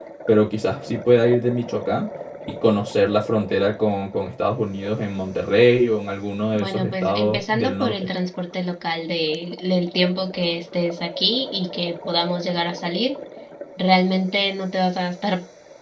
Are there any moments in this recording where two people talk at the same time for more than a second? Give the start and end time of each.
6.5-7.9

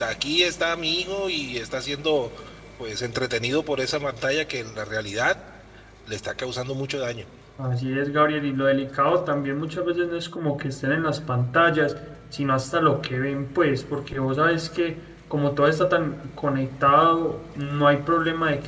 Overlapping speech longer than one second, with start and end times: none

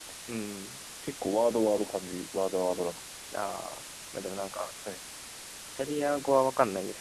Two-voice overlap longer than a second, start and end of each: none

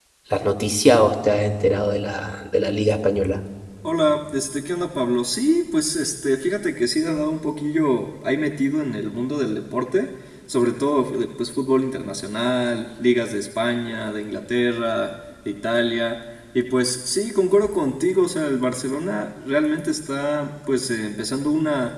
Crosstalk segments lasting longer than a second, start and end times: none

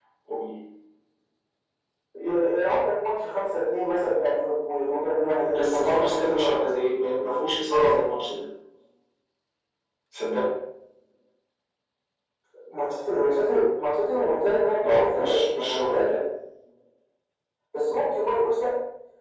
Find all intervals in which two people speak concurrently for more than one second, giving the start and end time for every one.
5.5-6.7, 14.8-16.1

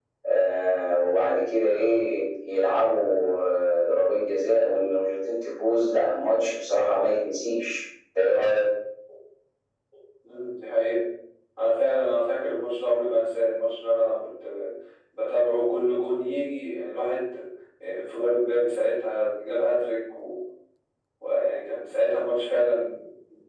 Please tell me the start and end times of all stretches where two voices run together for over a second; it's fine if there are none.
none

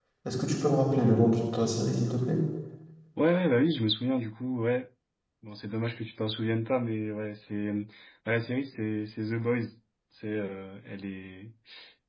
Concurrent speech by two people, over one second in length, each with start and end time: none

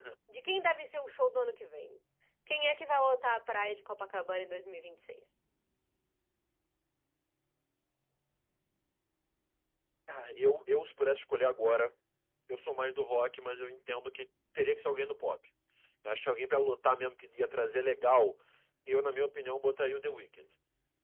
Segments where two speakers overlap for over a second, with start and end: none

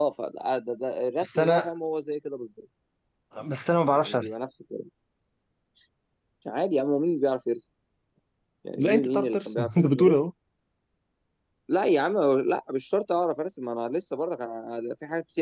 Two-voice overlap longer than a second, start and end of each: 8.8-10.2

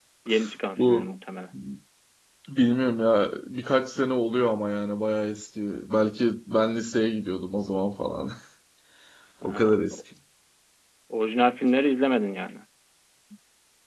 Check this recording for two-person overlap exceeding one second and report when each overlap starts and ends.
none

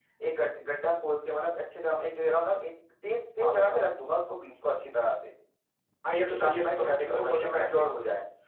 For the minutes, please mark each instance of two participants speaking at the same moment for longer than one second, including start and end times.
6.3-7.8

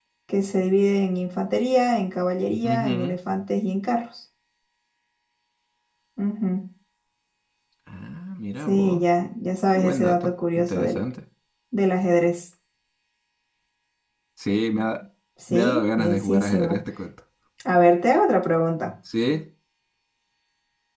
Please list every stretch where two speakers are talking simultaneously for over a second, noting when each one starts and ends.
9.7-11.0, 15.5-16.8

